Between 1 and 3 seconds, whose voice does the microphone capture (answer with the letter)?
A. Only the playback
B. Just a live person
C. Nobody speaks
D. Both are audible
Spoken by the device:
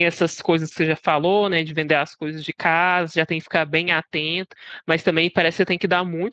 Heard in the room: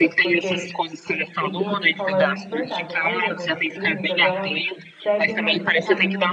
D